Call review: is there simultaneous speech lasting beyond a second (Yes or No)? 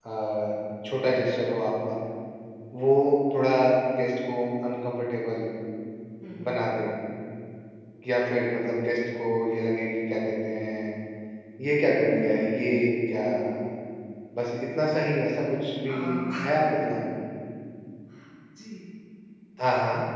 No